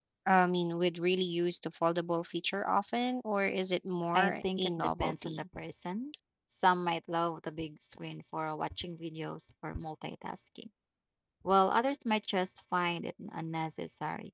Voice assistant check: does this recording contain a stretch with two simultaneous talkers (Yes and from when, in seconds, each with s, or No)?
Yes, from 4.1 s